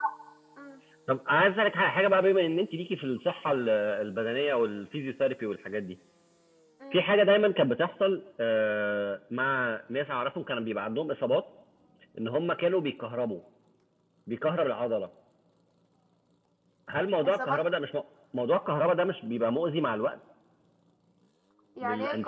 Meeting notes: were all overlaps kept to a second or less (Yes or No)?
Yes